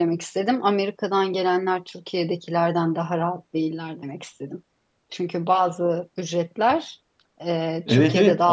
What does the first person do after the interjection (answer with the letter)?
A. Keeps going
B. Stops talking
B